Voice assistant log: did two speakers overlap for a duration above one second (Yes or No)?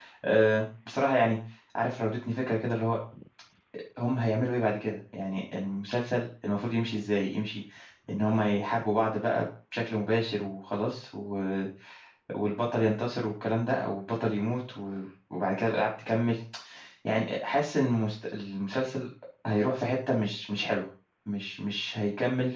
No